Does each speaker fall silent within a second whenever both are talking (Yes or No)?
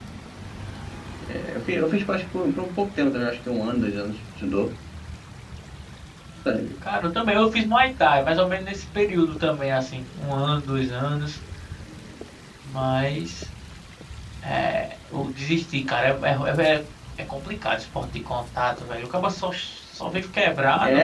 Yes